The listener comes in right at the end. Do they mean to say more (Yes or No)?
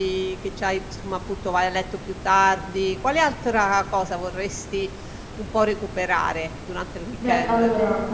Yes